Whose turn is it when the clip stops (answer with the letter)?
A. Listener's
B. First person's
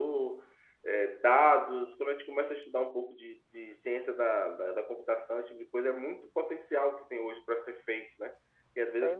B